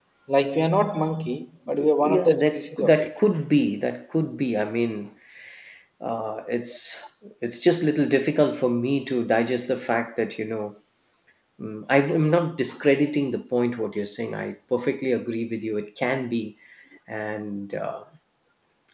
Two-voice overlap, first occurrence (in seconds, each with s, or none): 1.7 s